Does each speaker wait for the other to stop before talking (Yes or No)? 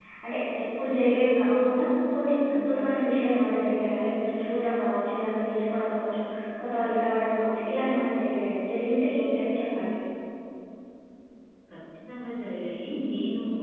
Yes